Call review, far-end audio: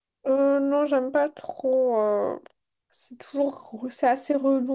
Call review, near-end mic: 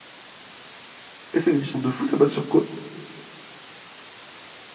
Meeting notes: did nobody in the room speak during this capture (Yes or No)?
No